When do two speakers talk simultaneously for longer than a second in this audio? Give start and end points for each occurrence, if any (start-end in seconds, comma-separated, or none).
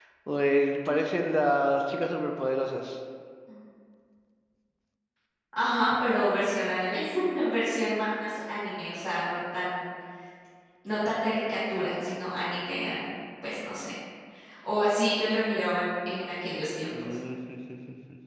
none